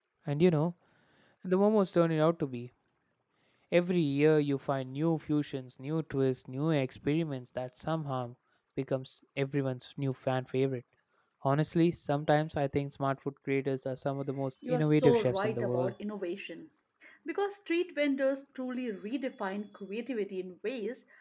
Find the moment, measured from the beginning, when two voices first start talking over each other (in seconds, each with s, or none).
14.6 s